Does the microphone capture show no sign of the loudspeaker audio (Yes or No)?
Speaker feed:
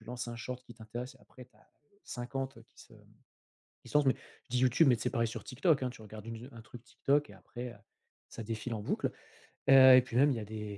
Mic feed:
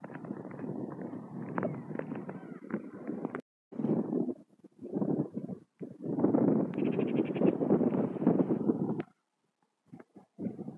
Yes